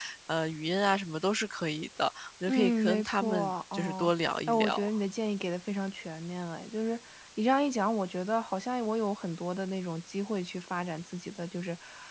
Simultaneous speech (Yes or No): Yes